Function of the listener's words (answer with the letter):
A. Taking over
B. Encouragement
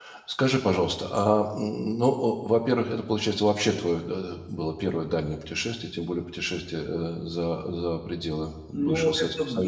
A